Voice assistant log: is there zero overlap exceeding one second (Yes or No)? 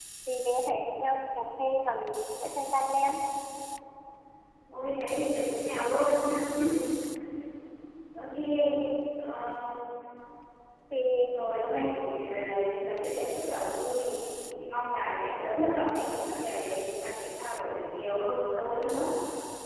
Yes